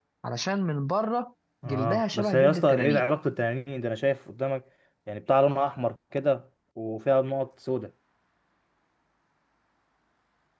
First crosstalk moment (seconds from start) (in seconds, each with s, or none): 1.6 s